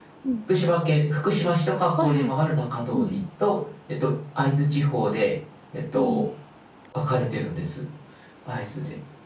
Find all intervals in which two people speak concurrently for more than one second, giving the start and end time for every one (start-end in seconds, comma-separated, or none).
none